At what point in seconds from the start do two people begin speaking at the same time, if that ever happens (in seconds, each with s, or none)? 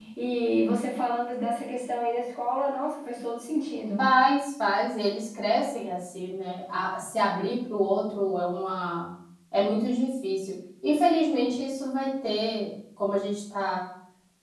none